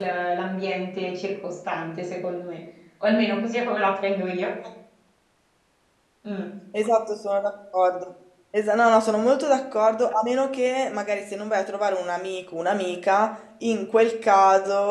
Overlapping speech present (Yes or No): No